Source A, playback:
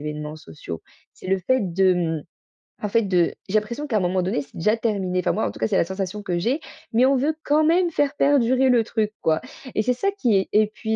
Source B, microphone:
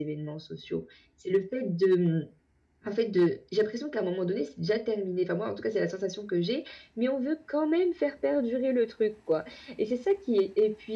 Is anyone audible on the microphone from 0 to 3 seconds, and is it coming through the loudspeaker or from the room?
echo only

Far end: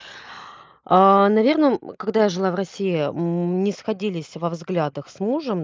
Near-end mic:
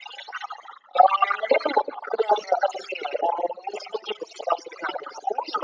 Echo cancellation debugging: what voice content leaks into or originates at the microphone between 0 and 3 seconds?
echo only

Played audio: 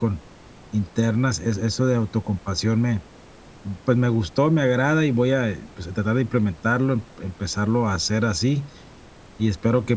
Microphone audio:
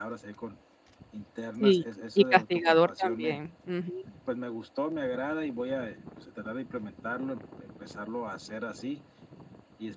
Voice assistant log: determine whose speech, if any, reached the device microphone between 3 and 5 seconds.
both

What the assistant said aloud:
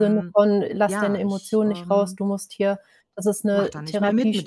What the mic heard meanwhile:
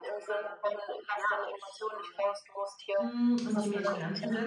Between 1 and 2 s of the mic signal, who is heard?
echo only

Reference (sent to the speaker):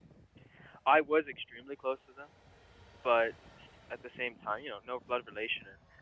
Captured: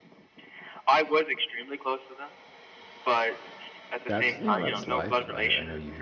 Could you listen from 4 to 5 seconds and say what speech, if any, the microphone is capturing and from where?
both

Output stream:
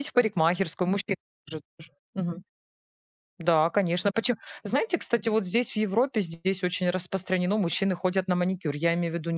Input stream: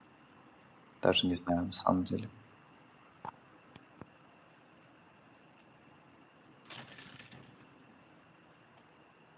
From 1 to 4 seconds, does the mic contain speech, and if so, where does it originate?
user only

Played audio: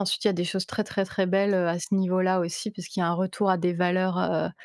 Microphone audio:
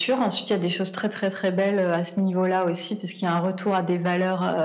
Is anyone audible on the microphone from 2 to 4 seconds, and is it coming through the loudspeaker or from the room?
echo only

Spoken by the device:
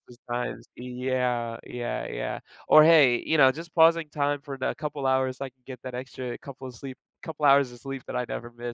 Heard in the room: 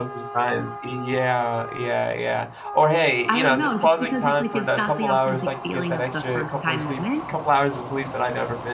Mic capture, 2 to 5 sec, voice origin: both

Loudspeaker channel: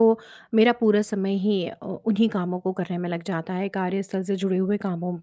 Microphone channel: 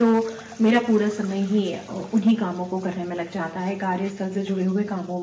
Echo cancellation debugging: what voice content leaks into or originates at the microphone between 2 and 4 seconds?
echo only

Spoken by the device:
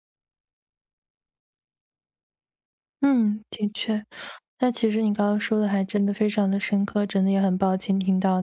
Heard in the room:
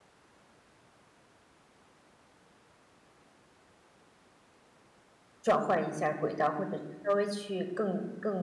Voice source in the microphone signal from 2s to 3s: neither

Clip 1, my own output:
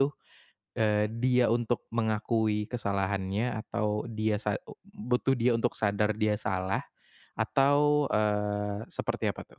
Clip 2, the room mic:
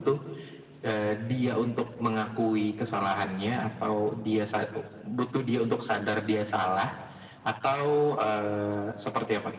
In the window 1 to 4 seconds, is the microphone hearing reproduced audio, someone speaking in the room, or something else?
echo only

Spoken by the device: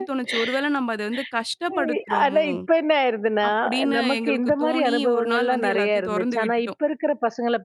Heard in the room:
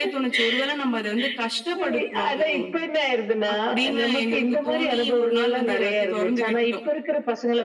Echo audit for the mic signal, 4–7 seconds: echo only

